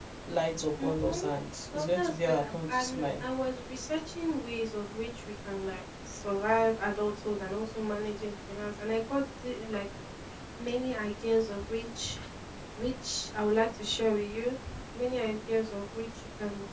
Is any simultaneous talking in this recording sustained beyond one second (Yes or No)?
Yes